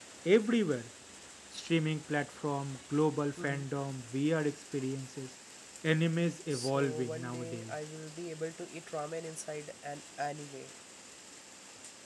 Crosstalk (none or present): present